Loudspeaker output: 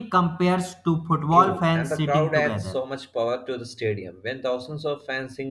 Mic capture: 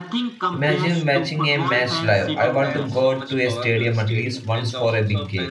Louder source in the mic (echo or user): user